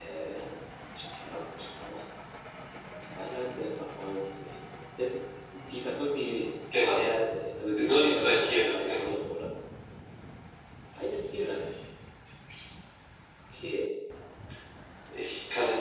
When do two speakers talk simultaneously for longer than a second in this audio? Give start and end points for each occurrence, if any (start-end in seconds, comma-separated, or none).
7.8-9.1